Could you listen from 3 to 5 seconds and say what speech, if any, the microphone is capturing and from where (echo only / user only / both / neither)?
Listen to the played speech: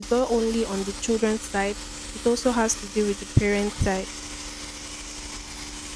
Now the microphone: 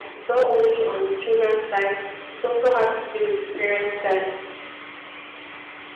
echo only